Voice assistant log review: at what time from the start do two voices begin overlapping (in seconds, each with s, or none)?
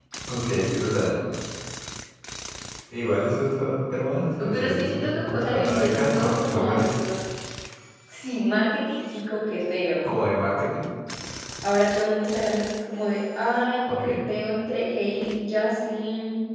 4.5 s